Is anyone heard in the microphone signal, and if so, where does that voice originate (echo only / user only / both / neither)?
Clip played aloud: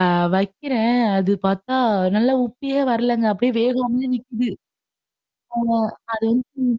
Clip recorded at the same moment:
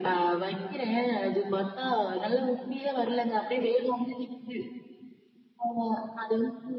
echo only